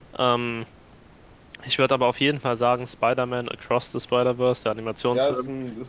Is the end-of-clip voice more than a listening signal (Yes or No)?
Yes